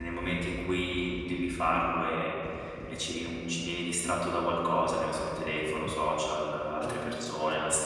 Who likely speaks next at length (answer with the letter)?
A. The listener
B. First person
B